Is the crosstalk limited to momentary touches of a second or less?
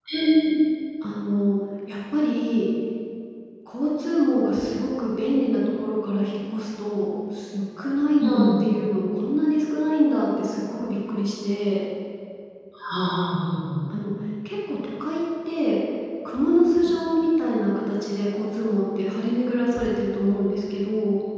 Yes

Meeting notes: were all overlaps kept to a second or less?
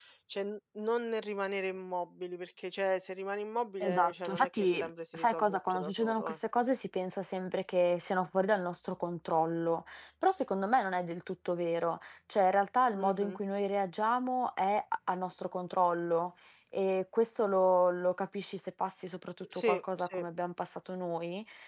No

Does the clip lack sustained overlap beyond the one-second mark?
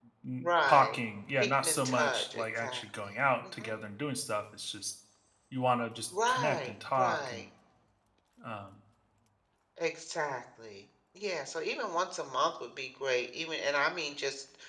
No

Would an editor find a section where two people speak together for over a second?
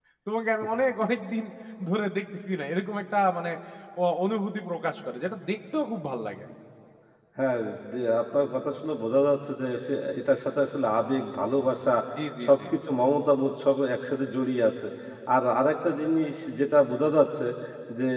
No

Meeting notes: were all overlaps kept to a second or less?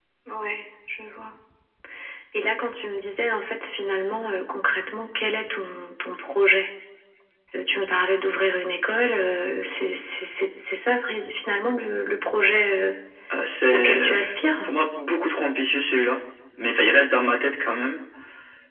Yes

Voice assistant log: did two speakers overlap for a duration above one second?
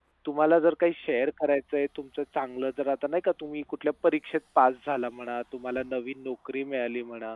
No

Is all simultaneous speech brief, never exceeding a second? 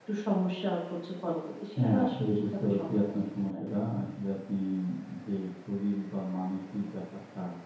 No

